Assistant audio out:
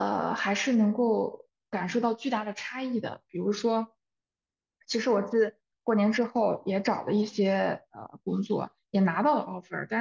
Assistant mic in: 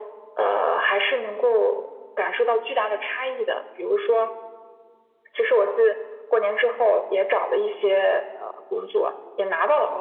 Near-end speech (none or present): none